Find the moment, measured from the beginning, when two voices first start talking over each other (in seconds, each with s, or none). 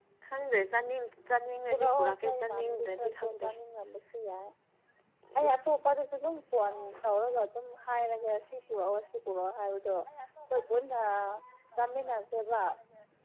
1.7 s